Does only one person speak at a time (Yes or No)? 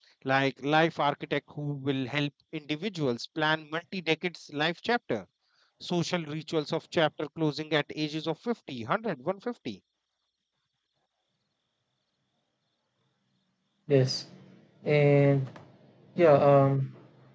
Yes